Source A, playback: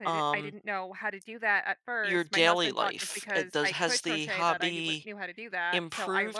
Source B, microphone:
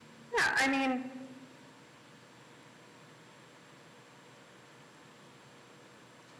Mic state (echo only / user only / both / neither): user only